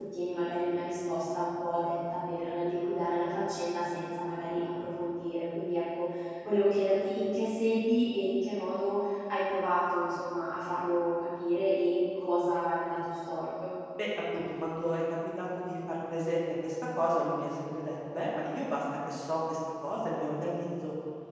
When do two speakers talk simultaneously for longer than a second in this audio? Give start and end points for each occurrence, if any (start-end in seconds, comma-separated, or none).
none